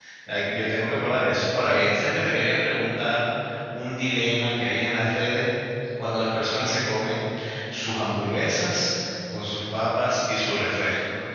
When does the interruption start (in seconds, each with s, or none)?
none